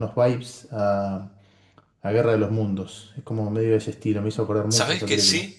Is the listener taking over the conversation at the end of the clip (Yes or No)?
Yes